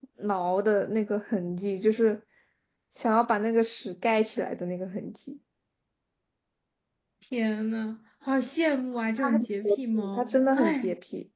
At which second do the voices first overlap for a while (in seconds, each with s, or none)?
9.2 s